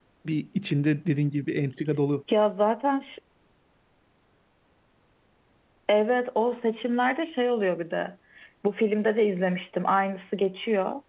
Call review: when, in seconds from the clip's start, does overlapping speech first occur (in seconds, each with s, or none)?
none